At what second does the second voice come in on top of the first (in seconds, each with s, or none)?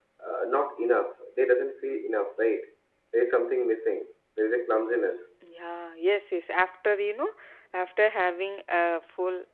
none